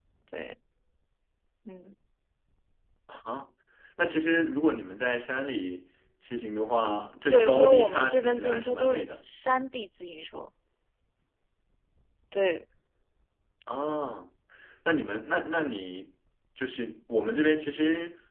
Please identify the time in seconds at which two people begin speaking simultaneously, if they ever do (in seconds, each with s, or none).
7.3 s